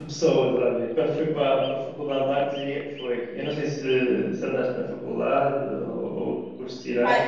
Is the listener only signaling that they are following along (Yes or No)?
No